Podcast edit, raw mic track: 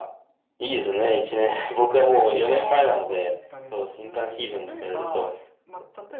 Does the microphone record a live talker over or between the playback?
Yes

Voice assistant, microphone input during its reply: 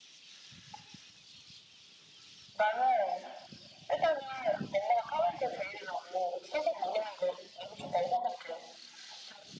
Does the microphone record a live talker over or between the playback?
No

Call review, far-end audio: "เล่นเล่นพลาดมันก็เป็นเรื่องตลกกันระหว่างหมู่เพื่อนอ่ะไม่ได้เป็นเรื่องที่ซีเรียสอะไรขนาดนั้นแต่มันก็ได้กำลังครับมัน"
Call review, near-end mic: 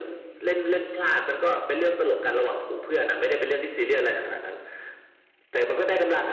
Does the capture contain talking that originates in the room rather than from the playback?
No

